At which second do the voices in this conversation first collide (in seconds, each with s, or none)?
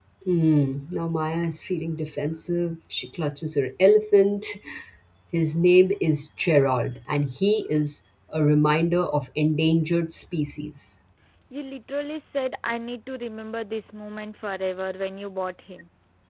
none